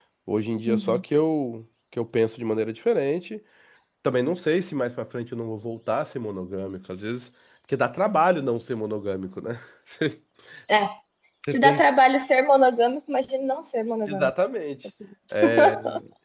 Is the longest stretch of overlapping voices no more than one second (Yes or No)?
Yes